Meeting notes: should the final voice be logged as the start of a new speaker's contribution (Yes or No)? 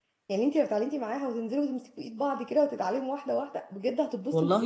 Yes